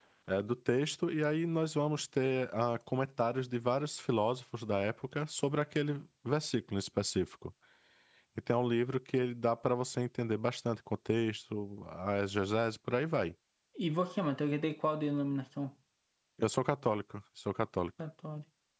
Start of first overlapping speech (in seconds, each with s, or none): none